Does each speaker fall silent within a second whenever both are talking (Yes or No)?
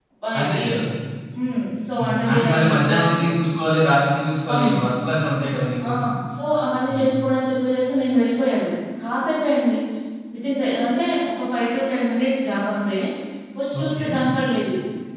No